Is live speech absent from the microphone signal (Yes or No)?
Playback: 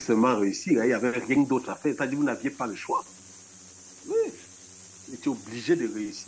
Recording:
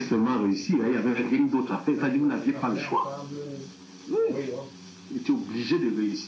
No